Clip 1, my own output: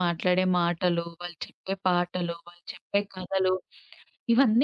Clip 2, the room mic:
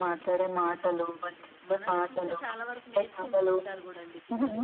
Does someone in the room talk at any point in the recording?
Yes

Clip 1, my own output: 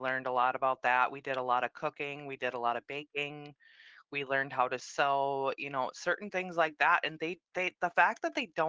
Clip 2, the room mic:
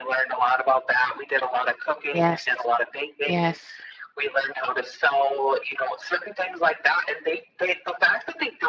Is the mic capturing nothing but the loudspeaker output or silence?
No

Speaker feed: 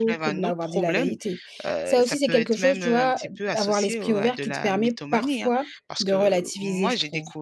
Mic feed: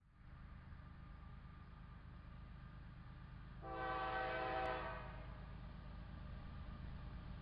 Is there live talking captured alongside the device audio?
No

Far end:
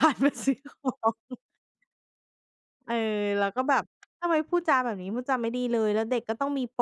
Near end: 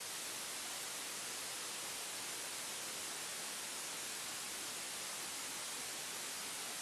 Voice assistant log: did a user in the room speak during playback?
No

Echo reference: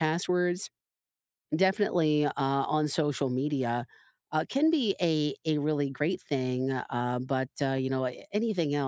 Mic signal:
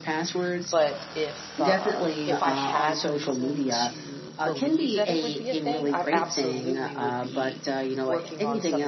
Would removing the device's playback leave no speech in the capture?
No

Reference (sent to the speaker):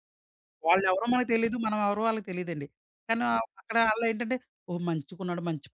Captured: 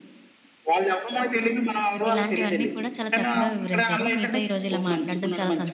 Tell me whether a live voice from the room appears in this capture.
Yes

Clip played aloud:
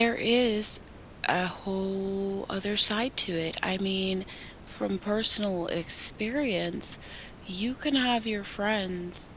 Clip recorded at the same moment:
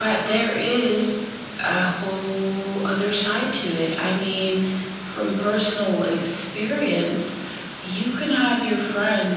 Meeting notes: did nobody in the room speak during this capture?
Yes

